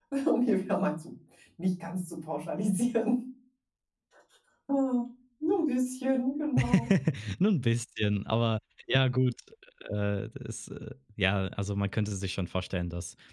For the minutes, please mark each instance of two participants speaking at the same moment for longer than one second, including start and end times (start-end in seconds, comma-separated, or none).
none